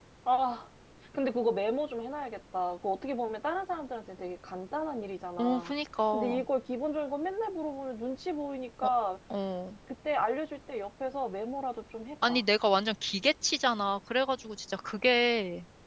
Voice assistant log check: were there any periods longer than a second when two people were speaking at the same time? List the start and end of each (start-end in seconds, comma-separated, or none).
none